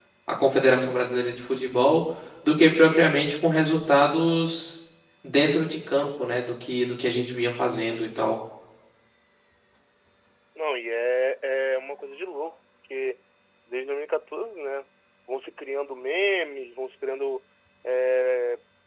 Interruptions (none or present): none